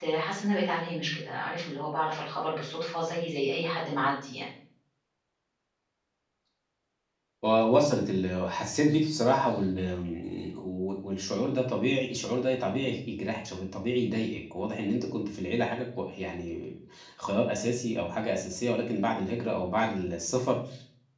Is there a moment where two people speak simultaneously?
No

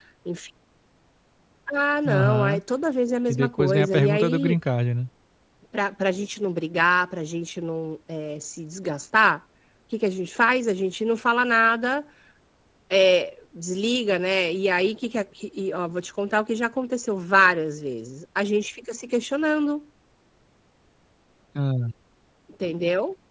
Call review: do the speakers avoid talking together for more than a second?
No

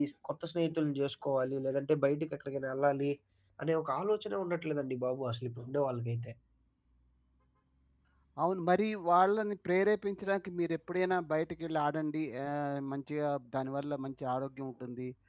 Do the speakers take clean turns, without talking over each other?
Yes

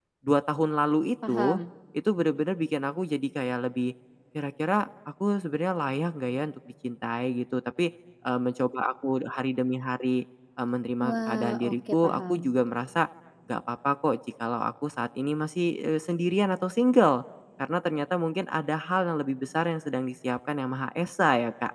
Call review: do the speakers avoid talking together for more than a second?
No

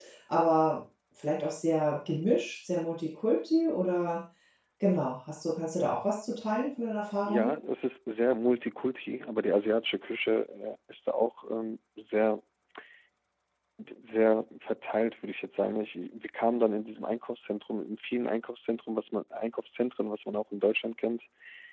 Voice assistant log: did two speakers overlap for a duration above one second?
No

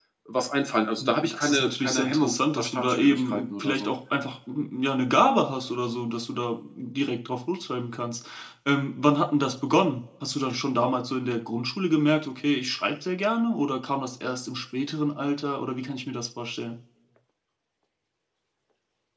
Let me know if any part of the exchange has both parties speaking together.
Yes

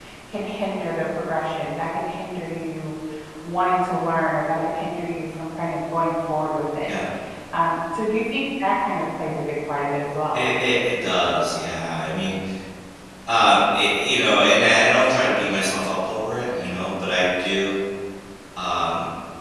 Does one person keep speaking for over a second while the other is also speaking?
No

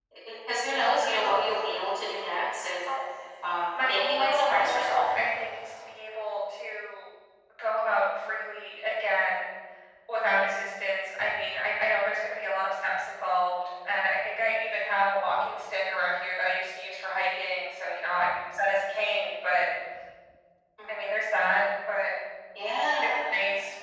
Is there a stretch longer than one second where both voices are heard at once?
Yes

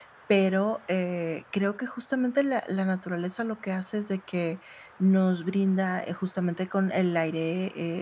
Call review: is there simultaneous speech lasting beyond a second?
No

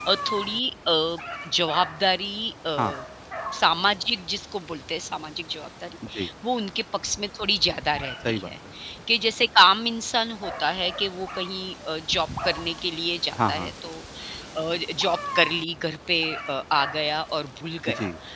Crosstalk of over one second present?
No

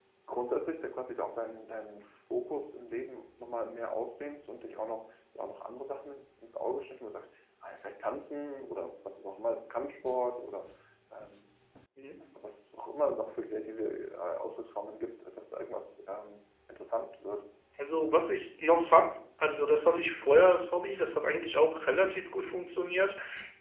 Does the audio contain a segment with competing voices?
No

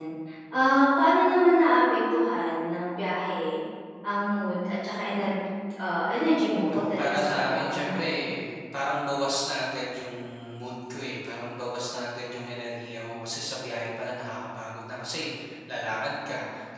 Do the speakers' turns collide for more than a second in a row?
Yes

